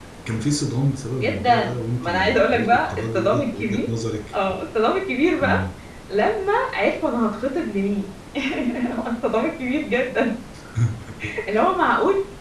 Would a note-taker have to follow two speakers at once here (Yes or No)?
Yes